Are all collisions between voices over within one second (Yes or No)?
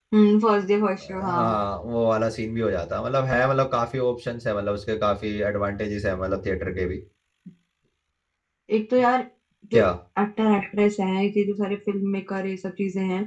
Yes